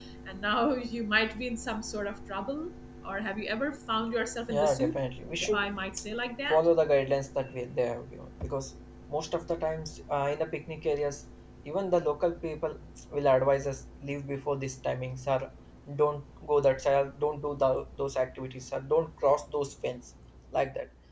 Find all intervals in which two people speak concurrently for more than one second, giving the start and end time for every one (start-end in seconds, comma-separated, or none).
none